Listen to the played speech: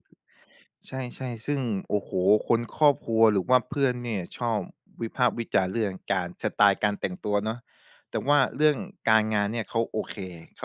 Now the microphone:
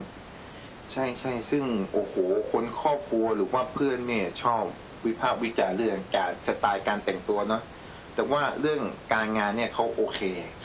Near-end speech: none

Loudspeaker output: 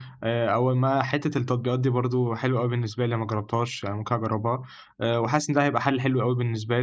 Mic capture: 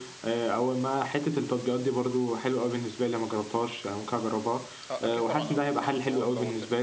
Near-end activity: present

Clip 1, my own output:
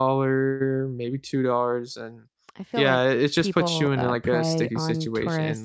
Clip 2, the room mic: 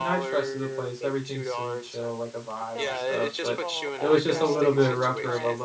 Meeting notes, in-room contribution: present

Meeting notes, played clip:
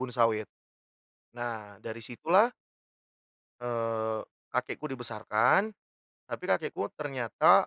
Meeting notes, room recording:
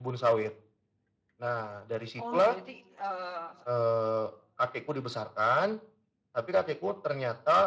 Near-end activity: present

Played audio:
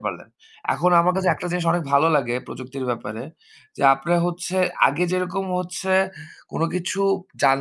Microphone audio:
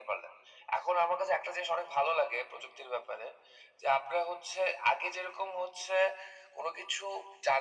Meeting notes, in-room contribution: none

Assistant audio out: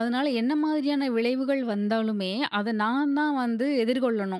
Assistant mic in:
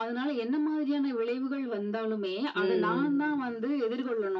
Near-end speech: present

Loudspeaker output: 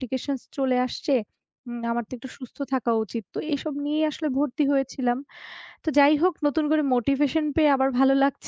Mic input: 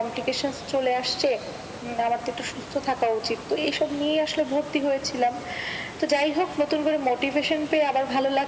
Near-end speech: none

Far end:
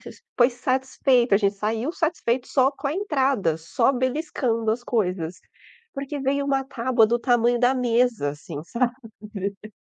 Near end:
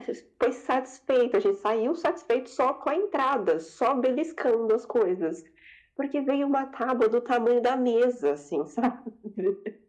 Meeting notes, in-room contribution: none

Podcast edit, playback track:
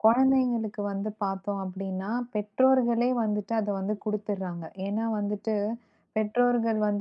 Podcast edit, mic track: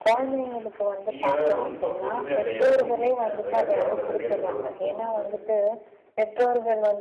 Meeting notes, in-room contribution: present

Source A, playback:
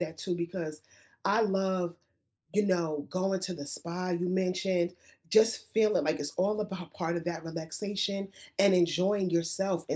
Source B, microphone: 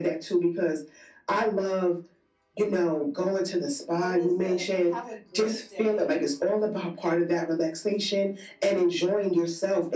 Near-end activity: present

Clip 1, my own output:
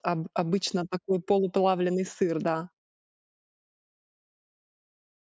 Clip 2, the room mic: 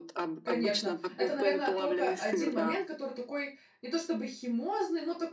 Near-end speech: present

